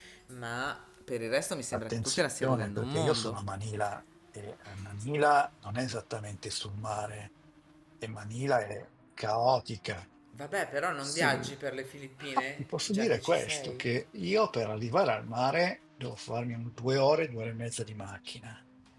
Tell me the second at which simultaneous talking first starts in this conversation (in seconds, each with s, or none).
1.7 s